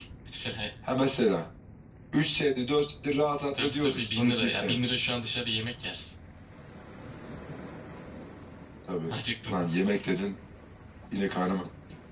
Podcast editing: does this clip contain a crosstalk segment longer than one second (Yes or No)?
Yes